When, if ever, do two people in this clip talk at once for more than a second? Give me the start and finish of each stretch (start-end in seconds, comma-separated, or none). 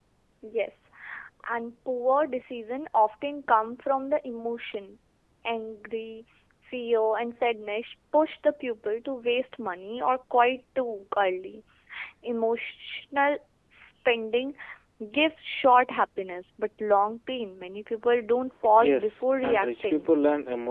18.8-20.1